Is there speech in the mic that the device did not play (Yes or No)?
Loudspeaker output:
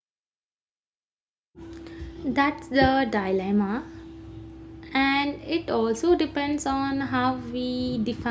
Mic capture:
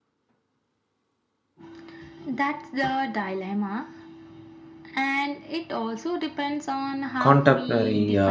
Yes